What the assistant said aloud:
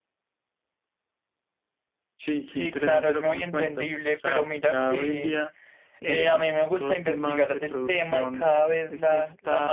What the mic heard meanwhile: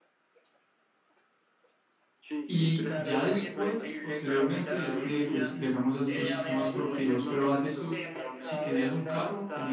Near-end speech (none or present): present